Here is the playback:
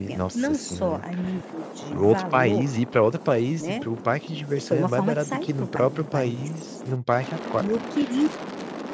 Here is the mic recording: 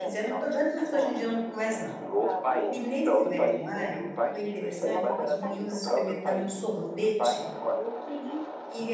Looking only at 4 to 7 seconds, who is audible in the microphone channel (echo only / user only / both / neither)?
both